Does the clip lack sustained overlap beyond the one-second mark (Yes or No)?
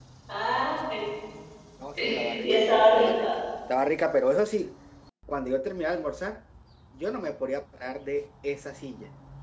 No